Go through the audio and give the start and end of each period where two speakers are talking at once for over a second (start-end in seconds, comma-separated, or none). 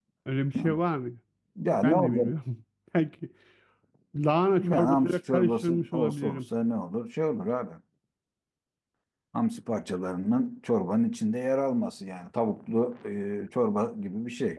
4.6-6.4